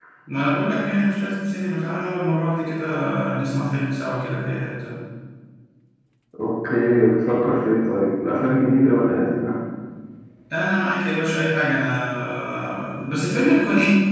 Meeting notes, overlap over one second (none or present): none